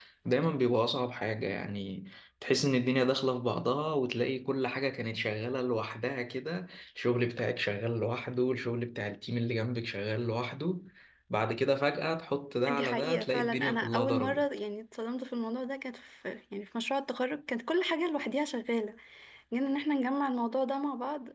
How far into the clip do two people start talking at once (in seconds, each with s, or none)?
12.7 s